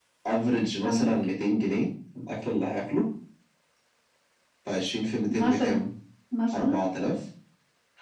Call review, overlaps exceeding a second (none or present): none